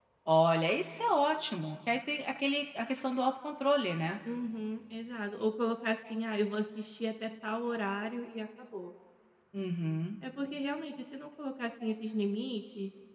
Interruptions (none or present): none